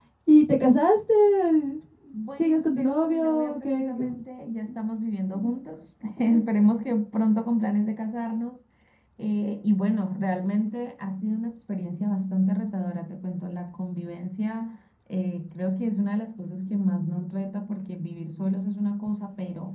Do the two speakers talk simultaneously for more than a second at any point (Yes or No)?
Yes